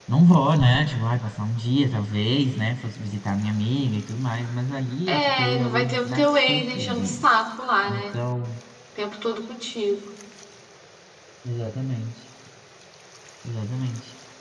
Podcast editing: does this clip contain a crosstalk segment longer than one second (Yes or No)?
Yes